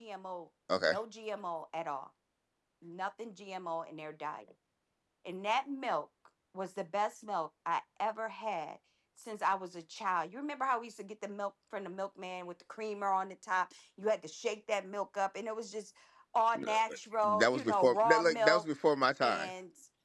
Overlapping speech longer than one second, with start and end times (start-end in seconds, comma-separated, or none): 17.2-18.6